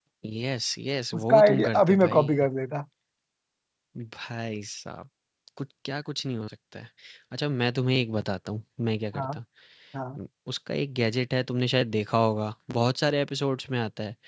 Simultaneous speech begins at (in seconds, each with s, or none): 1.2 s